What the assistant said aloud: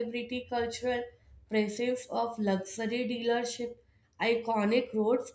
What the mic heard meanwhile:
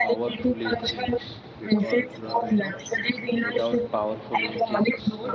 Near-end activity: present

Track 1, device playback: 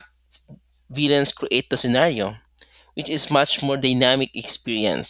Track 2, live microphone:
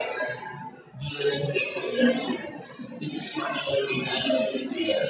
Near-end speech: none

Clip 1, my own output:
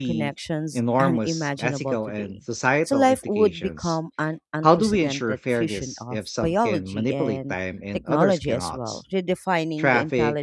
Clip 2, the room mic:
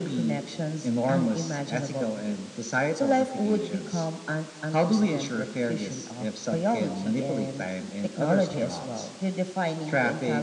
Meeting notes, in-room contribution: none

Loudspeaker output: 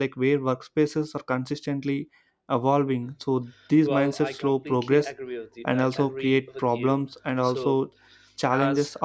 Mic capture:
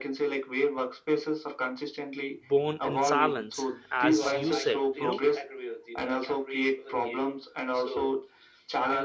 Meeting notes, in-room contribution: present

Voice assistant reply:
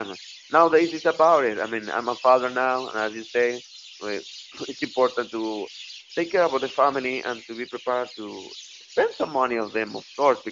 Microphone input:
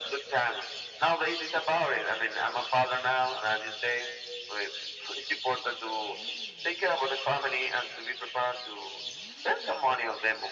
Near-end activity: none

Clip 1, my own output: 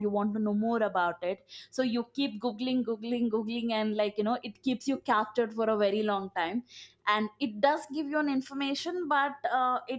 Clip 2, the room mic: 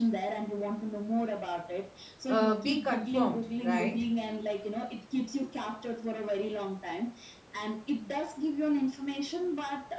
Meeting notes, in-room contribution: present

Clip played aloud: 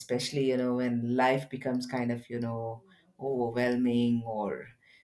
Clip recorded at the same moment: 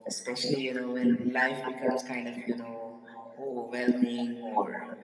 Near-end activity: none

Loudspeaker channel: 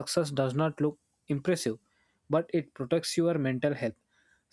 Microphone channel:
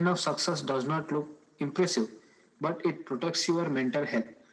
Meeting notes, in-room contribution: none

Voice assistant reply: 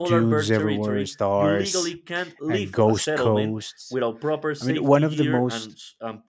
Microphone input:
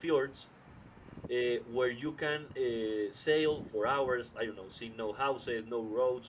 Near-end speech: present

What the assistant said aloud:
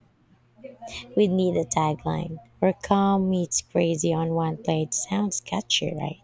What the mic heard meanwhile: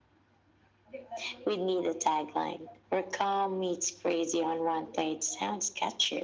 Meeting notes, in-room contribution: none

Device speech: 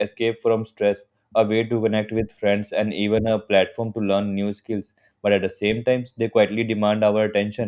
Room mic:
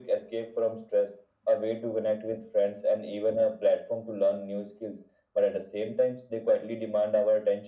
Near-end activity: none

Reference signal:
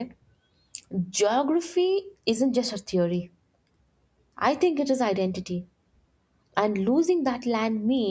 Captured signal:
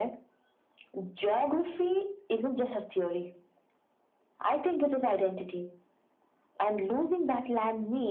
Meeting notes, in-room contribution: none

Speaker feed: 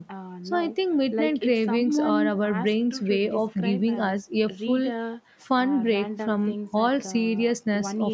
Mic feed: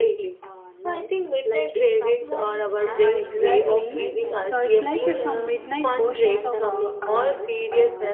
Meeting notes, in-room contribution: present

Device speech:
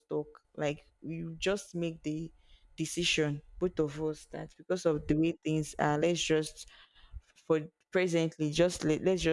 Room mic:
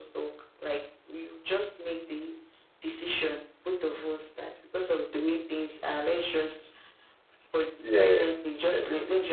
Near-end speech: present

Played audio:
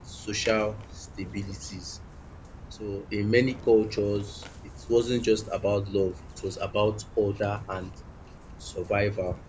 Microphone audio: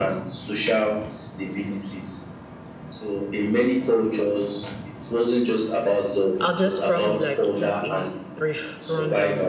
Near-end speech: present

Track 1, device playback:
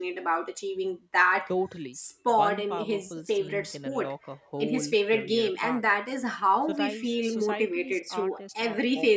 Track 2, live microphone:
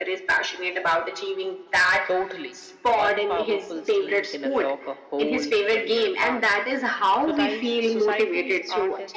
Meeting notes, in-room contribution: none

